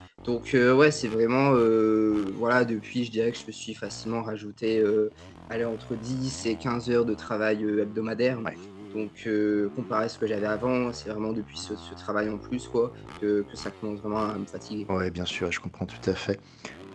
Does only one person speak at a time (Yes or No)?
Yes